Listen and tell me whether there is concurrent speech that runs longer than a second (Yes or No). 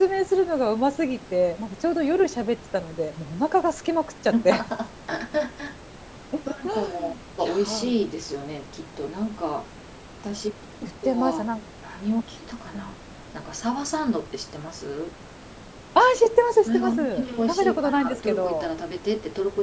Yes